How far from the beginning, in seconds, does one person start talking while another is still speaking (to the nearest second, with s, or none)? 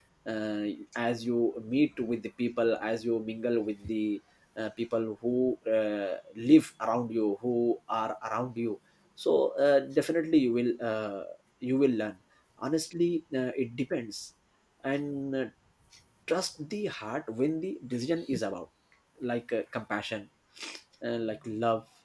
none